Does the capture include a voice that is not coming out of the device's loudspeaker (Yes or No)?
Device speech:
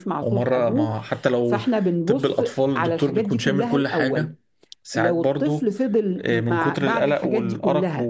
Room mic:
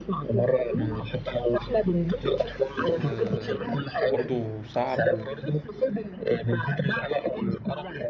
Yes